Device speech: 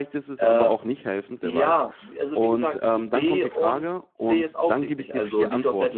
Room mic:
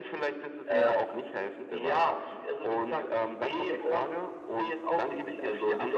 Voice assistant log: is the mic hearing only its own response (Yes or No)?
No